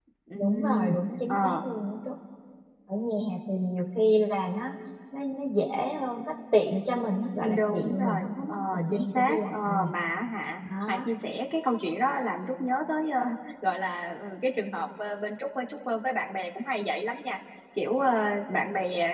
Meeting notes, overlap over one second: present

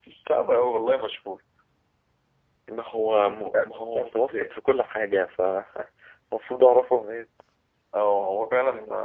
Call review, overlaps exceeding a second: present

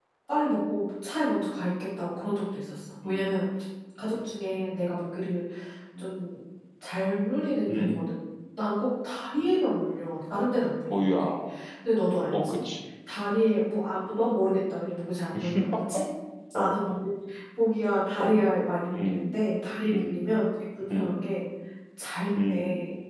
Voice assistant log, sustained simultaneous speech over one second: none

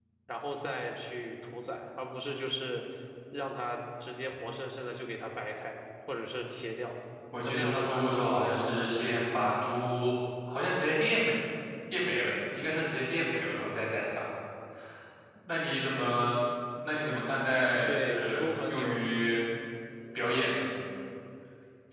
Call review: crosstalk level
present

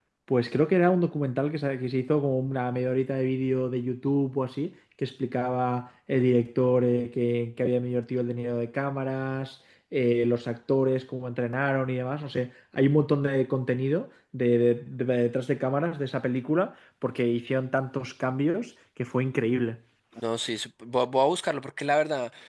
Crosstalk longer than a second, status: none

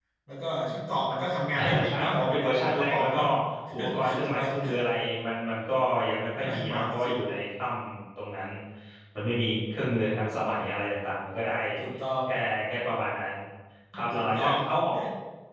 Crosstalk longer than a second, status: present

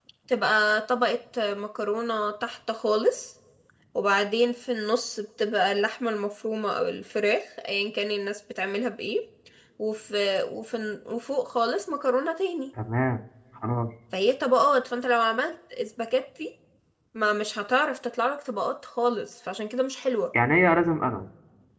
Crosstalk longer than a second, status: none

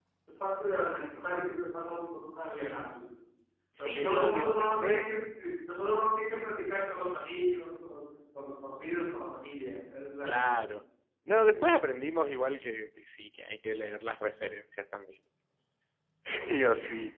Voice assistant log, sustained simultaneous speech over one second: present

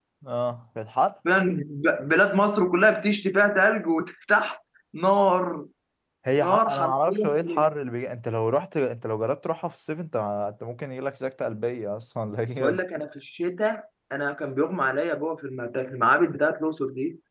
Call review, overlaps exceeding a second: present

